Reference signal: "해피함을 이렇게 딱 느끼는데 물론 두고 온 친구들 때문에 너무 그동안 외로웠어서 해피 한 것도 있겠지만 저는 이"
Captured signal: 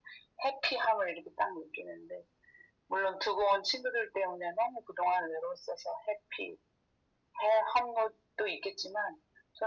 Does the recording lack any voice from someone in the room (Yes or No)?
Yes